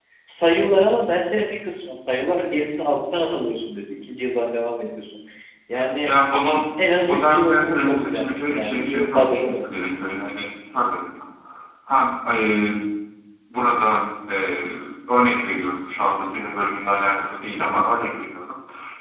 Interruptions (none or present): present